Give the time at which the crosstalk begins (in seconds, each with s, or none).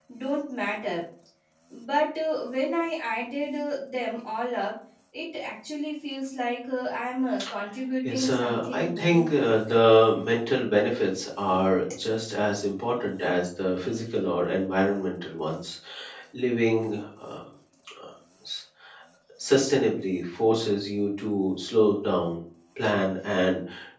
8.0 s